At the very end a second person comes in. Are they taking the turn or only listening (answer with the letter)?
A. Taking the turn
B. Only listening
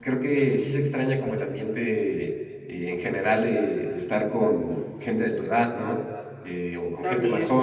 B